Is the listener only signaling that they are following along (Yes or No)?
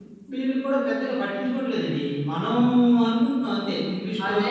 No